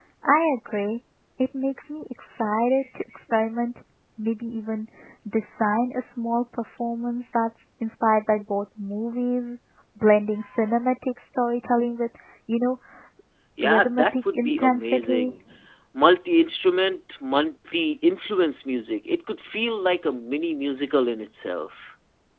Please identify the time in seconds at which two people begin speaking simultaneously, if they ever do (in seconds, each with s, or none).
13.6 s